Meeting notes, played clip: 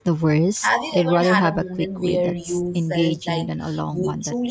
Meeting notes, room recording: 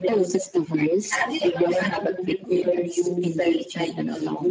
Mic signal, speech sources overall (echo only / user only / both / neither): echo only